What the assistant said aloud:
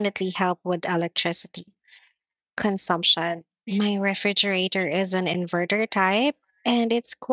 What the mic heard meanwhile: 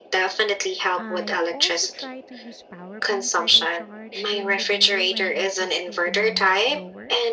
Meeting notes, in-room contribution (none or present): present